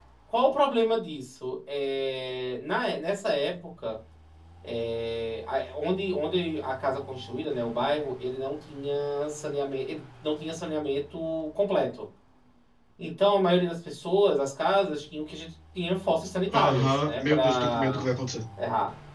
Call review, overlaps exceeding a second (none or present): present